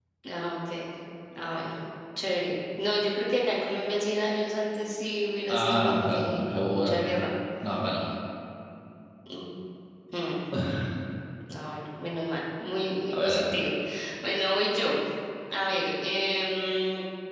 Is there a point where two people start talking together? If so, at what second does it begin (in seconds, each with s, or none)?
5.5 s